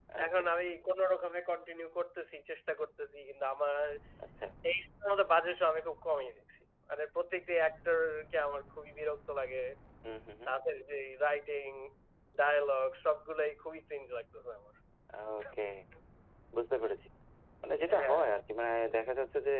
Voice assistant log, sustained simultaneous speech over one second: none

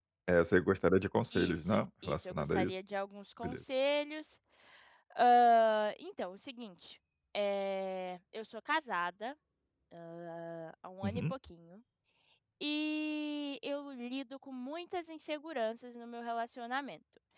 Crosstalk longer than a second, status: present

